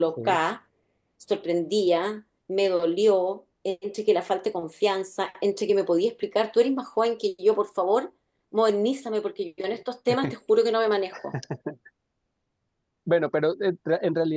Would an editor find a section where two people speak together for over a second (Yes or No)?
No